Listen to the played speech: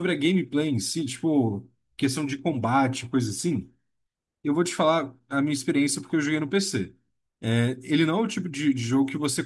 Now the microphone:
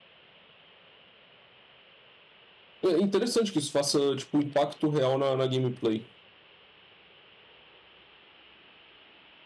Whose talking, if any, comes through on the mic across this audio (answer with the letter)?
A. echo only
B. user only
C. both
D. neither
B